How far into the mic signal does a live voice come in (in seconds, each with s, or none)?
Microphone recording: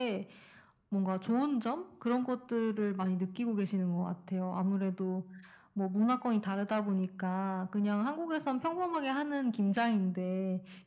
none